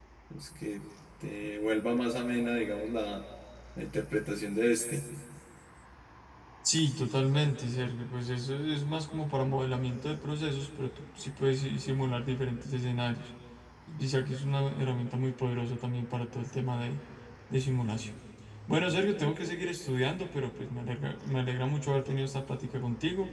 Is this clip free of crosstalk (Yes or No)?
Yes